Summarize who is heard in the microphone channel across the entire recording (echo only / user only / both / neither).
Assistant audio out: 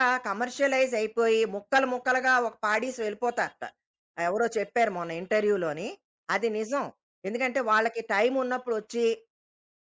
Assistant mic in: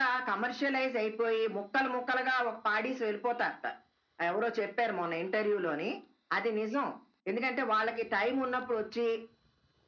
echo only